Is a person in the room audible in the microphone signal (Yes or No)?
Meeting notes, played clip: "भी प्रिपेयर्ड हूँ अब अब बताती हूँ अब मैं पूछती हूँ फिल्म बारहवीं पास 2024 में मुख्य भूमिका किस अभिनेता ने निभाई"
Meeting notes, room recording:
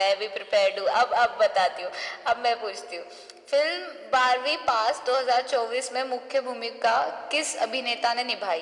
No